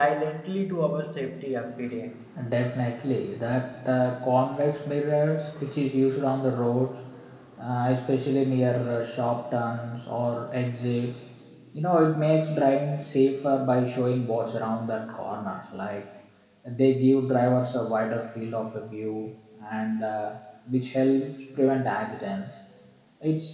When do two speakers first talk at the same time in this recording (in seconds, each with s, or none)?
none